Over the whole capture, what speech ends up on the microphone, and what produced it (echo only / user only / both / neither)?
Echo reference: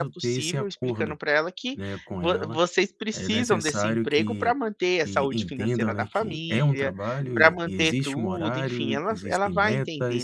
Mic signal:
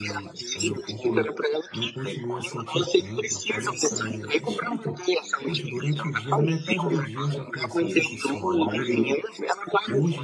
both